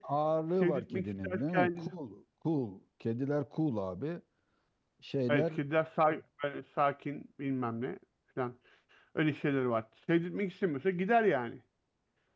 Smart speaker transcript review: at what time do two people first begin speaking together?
0.6 s

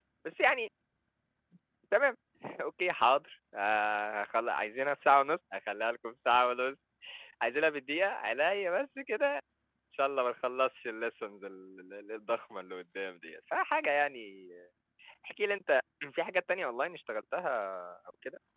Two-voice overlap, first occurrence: none

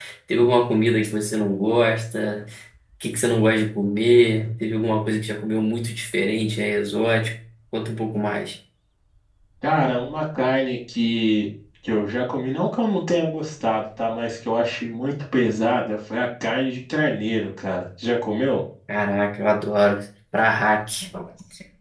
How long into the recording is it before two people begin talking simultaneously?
none

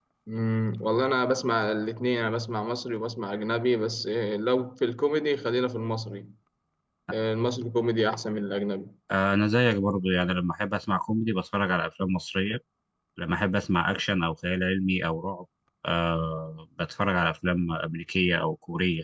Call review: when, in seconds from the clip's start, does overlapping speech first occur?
none

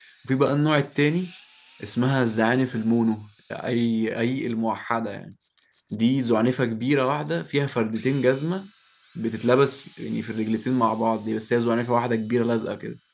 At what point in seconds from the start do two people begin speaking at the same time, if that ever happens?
none

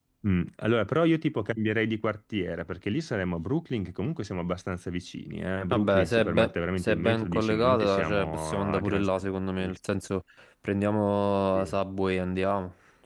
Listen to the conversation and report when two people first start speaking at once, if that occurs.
5.7 s

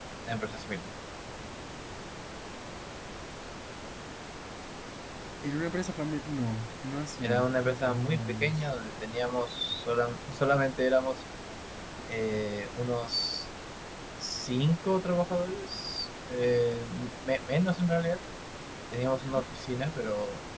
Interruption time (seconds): 7.2 s

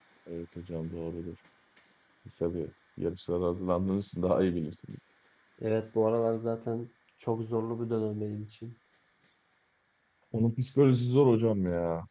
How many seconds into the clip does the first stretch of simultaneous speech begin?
none

